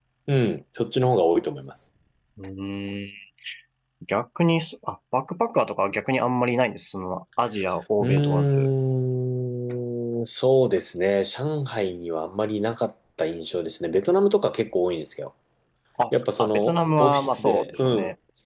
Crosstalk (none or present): present